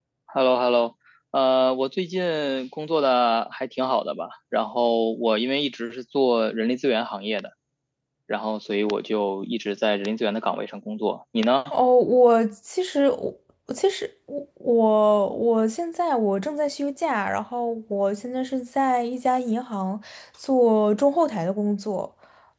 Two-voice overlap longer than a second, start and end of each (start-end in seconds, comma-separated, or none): none